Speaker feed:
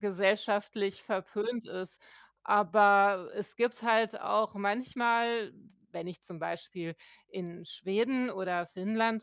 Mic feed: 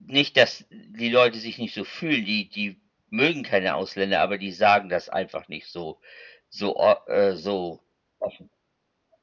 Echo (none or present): none